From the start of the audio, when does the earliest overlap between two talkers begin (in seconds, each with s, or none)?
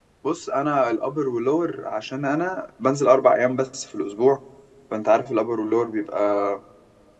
none